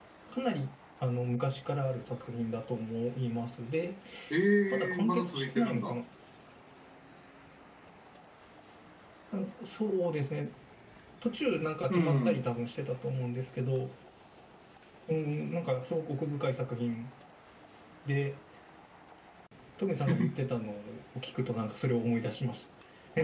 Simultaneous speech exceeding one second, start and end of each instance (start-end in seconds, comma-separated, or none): 4.7-5.9